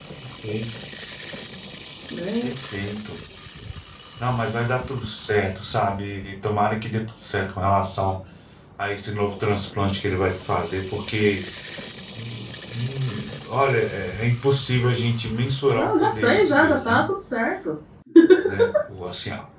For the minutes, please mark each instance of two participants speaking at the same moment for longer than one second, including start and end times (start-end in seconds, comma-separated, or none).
15.7-17.0